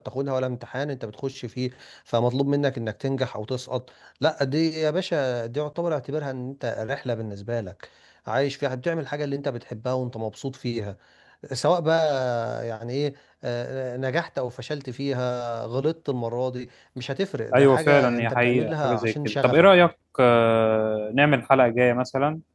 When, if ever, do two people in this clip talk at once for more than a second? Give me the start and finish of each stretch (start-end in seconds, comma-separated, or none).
17.6-19.7